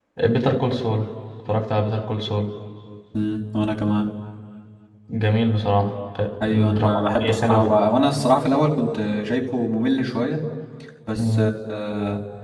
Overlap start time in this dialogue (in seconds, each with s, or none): 6.5 s